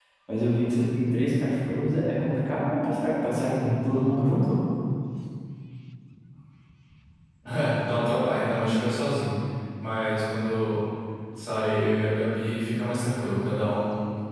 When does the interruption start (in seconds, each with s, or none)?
none